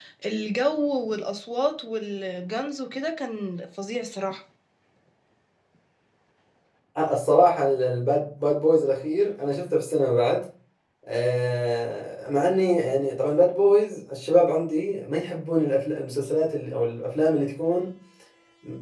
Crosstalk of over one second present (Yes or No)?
No